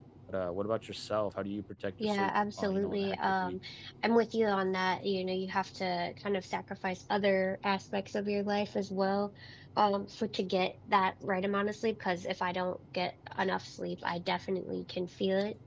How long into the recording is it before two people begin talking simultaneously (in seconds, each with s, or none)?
2.0 s